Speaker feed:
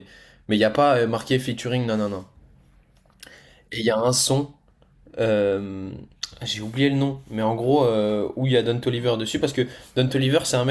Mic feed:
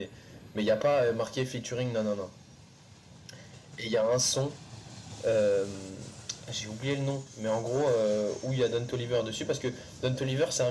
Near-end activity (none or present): none